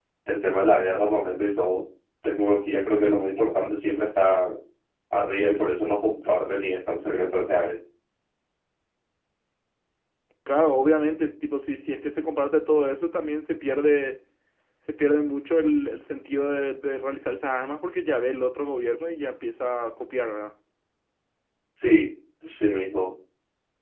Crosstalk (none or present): none